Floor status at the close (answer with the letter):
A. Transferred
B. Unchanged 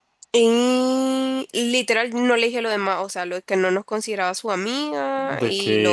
A